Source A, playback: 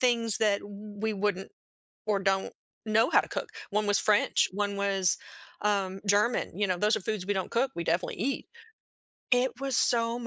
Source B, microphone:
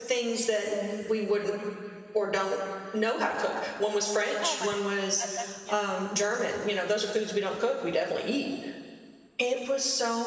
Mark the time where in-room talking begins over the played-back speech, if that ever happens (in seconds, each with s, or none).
4.4 s